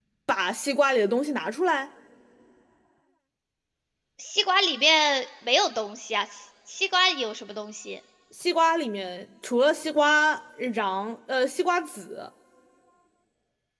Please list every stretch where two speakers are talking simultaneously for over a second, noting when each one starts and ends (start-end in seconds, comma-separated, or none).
none